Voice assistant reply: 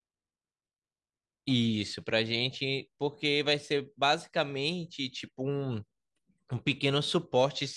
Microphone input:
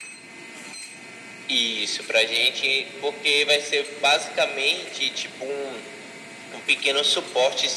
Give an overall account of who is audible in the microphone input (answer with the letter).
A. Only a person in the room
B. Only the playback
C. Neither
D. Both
B